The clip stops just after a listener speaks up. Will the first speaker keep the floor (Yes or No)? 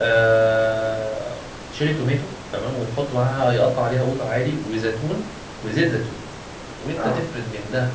Yes